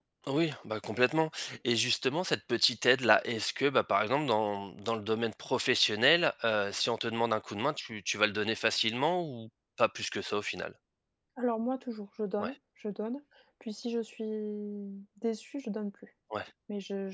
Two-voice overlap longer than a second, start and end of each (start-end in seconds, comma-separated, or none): none